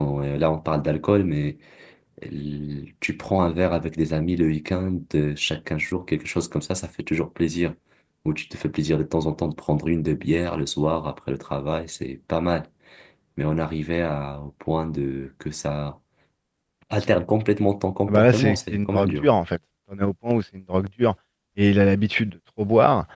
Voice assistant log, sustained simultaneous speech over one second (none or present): present